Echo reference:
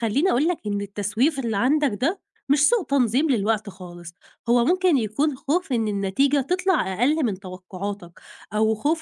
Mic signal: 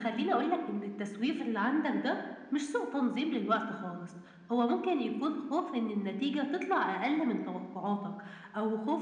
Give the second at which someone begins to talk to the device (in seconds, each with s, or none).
none